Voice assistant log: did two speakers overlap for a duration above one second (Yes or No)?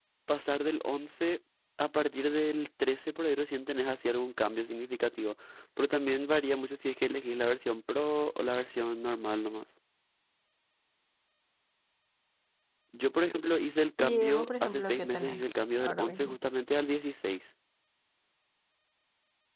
Yes